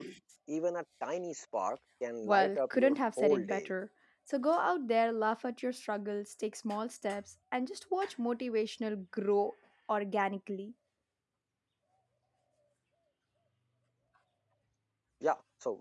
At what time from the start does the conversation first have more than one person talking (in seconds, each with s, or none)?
2.2 s